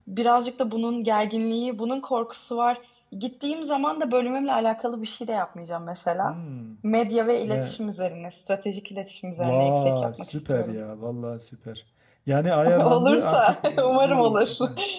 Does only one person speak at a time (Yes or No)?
No